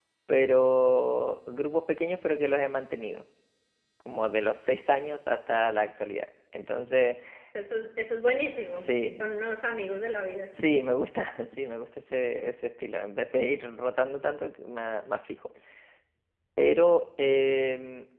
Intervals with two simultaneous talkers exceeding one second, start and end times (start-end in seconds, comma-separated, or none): none